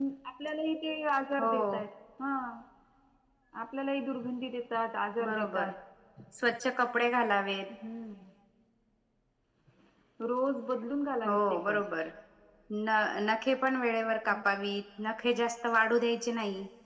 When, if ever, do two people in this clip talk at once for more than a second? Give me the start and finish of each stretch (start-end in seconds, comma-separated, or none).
none